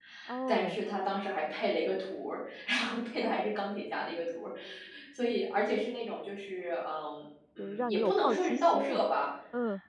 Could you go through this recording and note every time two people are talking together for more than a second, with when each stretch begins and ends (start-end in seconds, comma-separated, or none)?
7.6-9.0